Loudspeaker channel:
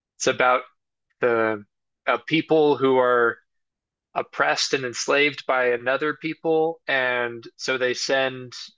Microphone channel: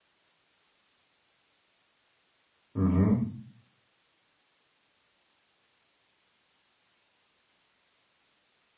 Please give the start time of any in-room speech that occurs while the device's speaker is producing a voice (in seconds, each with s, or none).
2.7 s